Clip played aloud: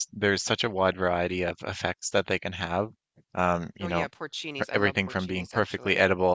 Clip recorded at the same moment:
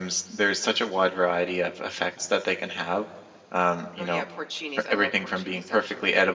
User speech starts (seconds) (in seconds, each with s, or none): none